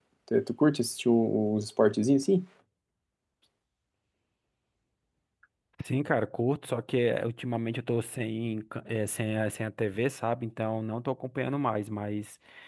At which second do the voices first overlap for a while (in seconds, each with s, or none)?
none